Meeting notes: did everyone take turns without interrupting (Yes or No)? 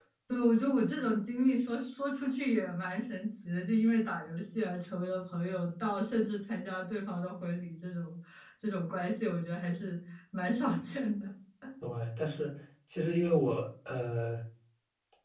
Yes